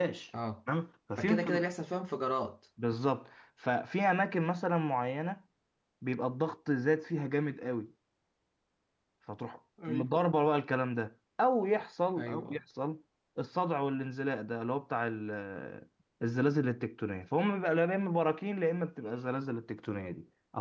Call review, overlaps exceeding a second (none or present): none